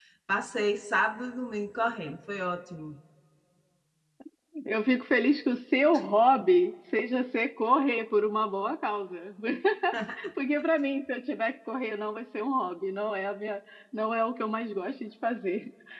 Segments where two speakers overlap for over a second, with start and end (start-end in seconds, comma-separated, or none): none